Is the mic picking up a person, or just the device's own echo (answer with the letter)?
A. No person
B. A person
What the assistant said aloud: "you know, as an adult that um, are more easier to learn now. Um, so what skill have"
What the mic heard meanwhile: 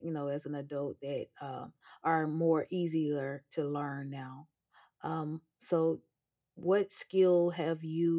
A